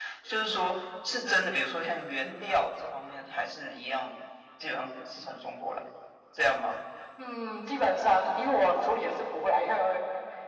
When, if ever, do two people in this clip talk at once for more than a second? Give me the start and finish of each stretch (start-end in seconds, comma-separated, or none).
none